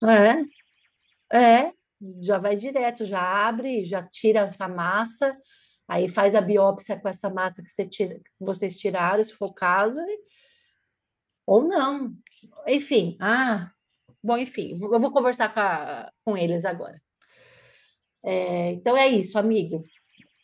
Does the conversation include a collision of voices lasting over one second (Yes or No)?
No